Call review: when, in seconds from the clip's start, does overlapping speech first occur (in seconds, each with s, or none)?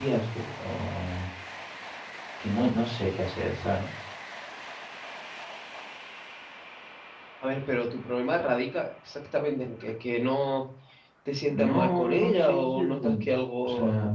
11.5 s